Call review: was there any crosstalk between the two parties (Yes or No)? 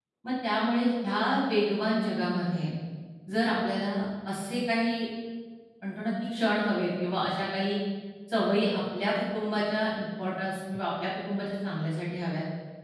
No